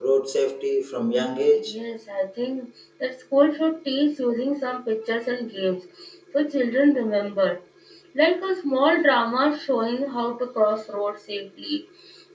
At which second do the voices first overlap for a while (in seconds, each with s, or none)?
none